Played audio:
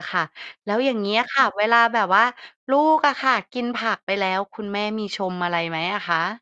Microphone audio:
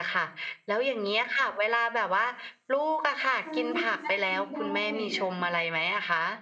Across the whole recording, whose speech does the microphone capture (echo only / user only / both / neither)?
both